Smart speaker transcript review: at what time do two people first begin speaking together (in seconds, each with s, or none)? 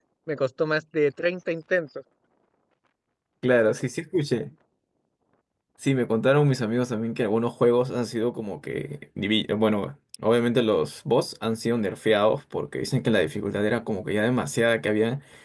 none